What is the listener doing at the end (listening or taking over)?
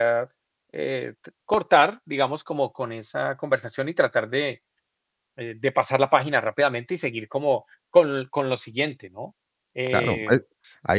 taking over